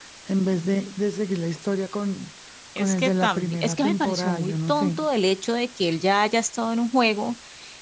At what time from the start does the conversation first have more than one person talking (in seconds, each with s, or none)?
2.8 s